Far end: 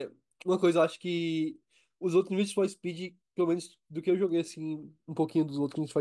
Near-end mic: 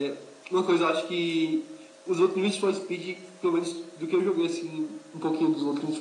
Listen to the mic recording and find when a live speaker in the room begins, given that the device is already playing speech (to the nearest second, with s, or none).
none